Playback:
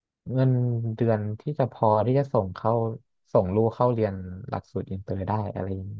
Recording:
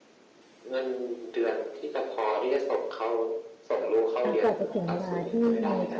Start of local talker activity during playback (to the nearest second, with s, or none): 4 s